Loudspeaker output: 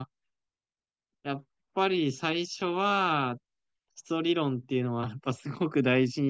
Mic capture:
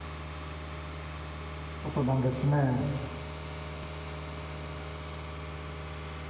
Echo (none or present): none